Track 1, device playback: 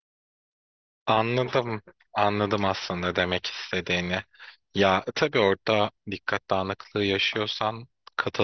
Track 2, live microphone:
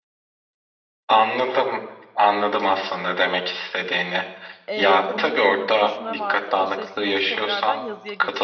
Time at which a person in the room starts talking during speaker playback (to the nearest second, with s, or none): 5 s